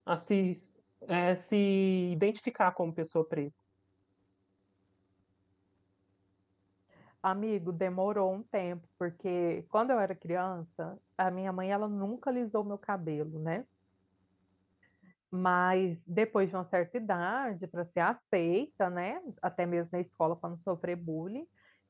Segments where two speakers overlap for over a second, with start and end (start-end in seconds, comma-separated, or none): none